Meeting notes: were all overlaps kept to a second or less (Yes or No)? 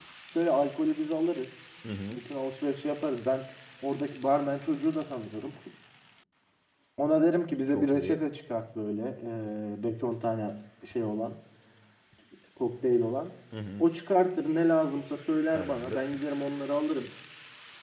Yes